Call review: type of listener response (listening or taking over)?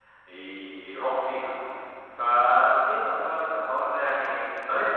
taking over